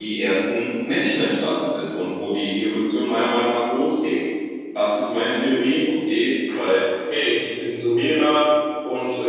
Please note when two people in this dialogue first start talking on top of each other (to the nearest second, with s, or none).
none